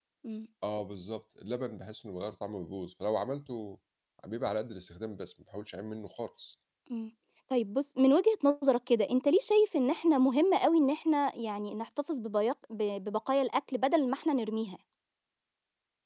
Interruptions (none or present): none